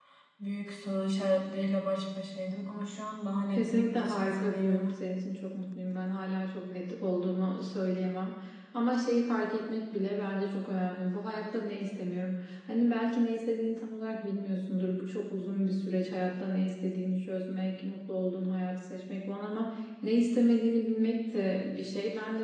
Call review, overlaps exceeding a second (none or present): present